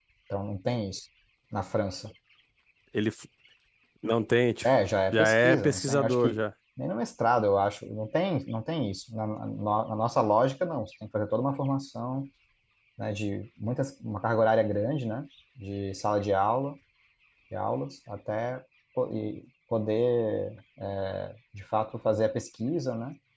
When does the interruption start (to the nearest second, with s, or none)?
5 s